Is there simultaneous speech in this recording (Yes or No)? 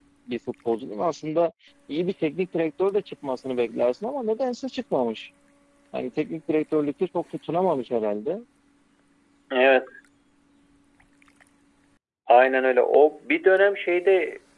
No